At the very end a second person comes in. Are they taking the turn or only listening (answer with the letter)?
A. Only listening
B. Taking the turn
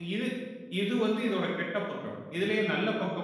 A